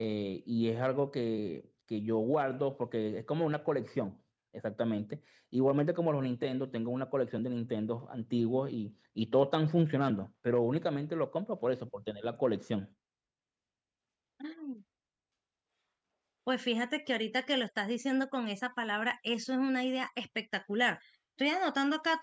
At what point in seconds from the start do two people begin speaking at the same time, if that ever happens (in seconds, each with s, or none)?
none